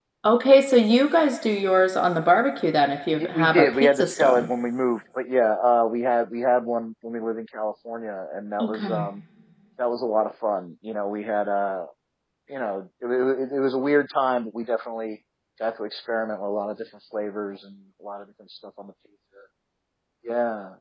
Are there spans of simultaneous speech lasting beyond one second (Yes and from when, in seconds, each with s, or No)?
Yes, from 3.1 s